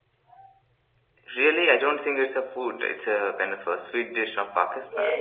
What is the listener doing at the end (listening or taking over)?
taking over